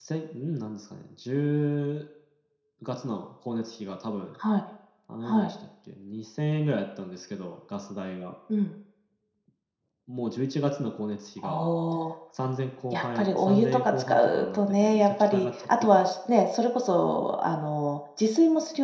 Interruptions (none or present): present